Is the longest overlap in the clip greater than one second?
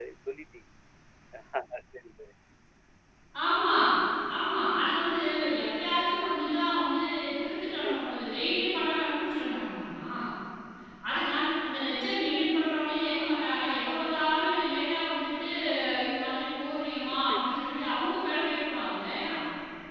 No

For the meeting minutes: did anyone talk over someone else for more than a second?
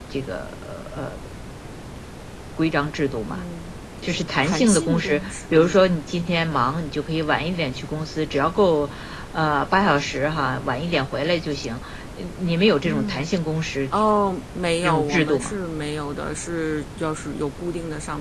Yes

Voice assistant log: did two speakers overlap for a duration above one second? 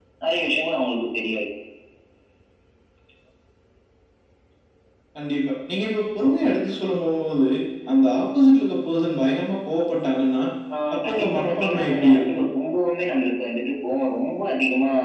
Yes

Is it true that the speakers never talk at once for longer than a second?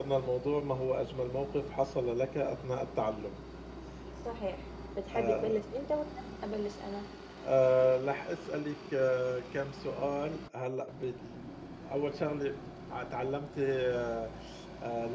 Yes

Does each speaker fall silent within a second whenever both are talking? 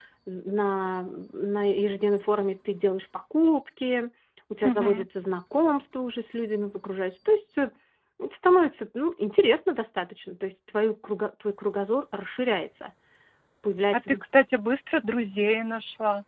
Yes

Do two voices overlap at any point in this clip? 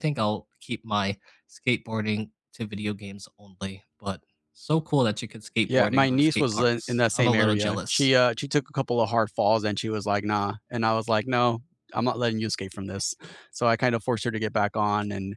Yes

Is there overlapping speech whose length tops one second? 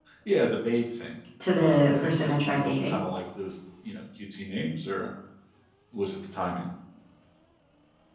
Yes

